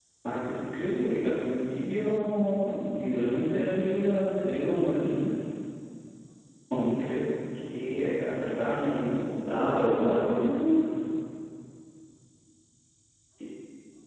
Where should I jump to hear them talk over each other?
9.4 s

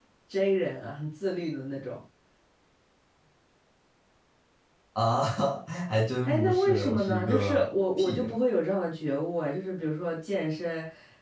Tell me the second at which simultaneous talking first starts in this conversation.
6.2 s

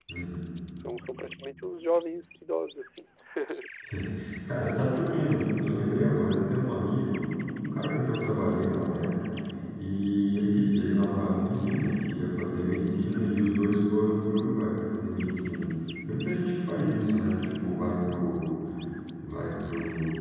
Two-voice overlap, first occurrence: none

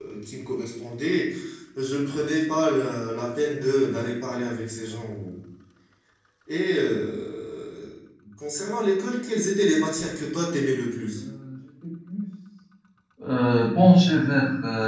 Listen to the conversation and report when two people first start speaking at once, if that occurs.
none

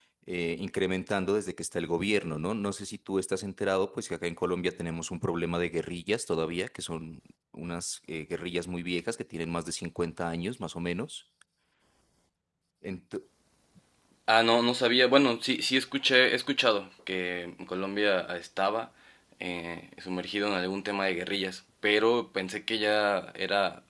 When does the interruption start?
none

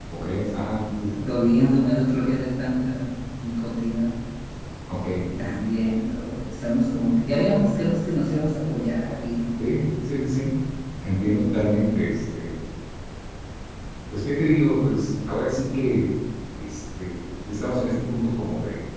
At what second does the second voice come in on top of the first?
none

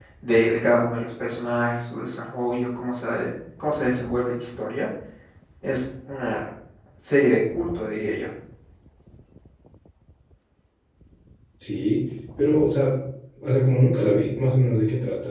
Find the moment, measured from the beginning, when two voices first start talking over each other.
none

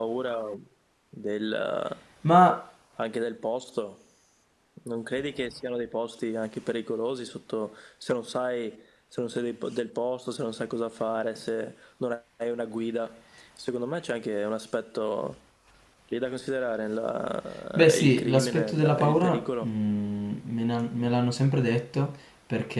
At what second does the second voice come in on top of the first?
17.8 s

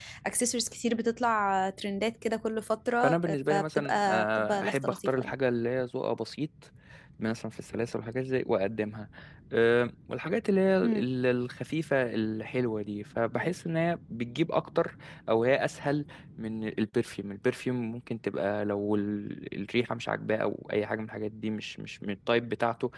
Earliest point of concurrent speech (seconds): 3.0 s

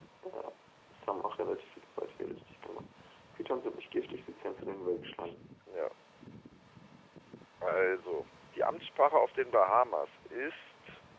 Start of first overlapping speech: none

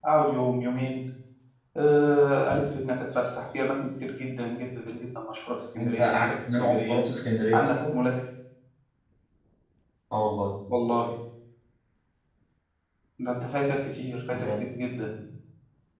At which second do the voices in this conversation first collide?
5.8 s

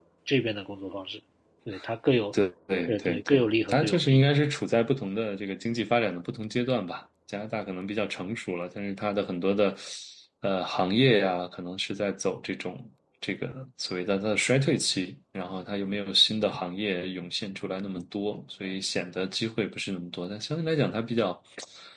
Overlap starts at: 2.8 s

